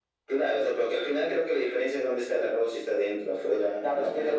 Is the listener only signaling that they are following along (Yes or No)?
No